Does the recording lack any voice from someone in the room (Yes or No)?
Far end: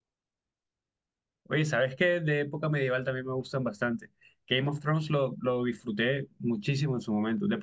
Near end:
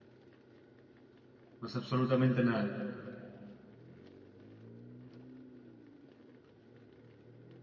No